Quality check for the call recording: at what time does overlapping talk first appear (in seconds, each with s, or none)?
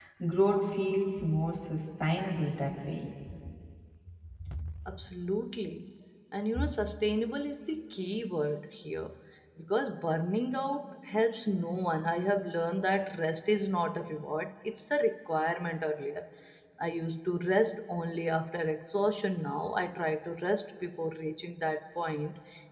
none